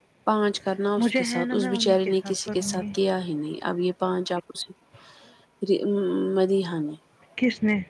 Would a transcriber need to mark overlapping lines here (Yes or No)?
Yes